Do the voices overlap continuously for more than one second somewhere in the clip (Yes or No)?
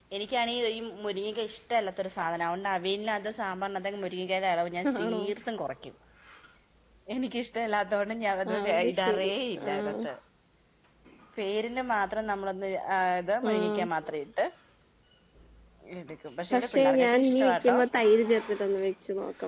Yes